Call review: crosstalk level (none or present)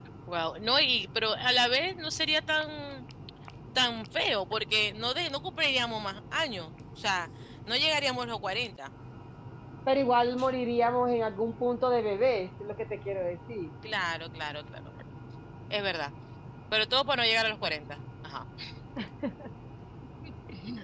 none